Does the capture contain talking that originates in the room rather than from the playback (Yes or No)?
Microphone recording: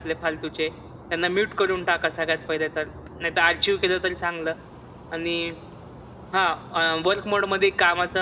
No